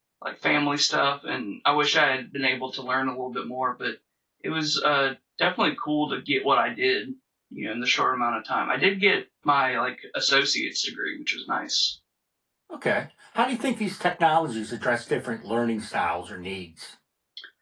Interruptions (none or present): none